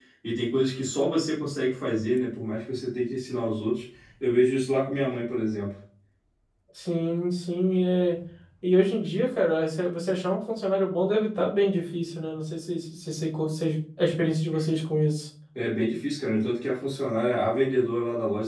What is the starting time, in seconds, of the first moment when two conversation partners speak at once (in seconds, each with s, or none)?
none